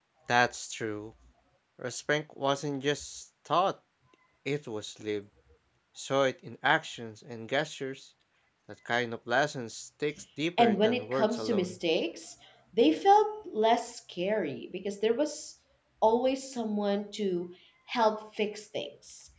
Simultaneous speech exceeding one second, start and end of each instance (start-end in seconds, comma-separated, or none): 10.6-11.8